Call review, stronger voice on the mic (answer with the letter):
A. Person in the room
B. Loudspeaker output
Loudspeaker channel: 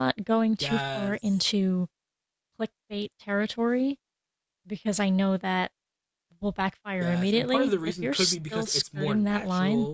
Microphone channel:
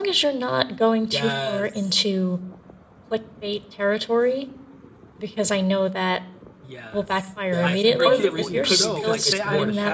B